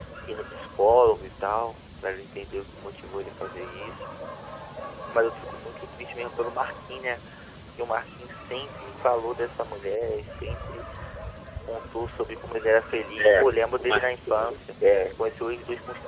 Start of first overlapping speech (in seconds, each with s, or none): 13.2 s